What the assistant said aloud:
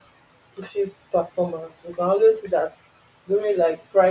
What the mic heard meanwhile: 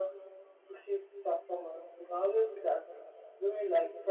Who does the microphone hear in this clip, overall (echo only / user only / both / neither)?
echo only